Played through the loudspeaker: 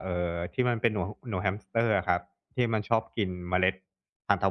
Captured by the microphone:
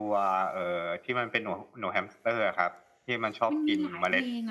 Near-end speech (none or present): present